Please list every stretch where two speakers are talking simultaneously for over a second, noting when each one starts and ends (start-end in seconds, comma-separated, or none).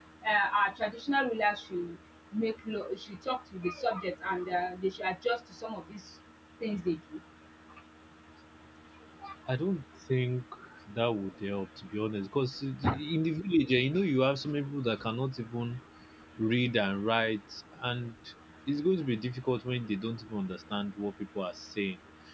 none